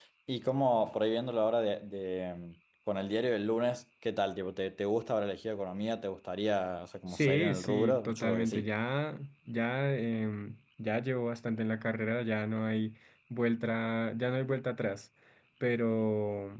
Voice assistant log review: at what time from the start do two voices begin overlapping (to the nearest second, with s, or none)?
7 s